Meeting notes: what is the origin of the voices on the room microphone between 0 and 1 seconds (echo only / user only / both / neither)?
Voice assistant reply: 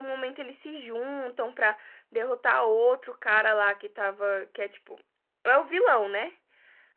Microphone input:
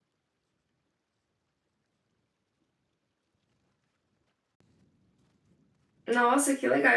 neither